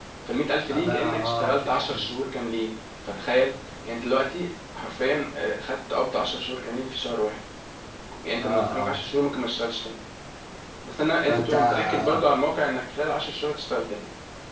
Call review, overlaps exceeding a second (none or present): present